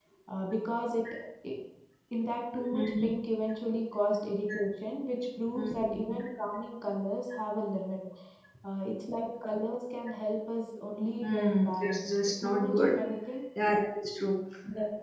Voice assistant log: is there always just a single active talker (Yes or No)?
No